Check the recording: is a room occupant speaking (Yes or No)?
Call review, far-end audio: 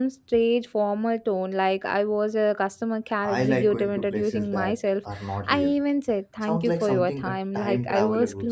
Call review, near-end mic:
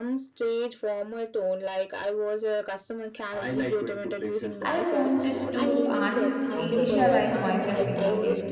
Yes